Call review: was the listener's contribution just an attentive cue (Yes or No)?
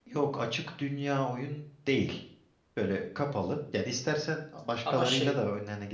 Yes